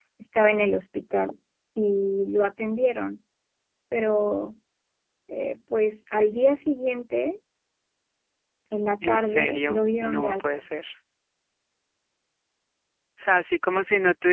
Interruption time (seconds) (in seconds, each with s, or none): 9.0 s